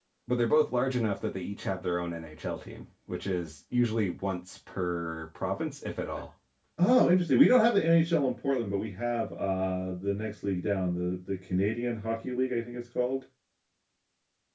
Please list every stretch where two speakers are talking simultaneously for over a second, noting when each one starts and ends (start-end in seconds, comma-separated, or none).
none